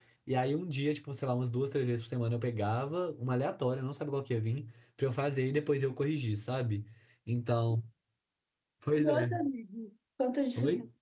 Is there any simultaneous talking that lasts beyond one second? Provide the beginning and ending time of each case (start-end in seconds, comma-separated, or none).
none